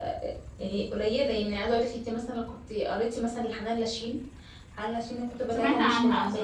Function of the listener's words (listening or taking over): taking over